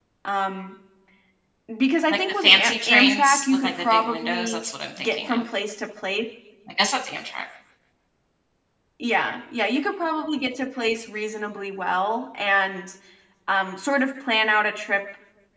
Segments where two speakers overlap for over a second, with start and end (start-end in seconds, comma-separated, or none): 2.1-4.6